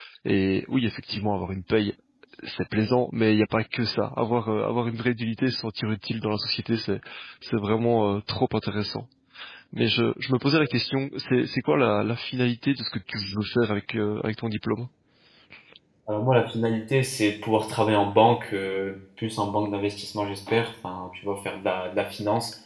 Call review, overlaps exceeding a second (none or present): none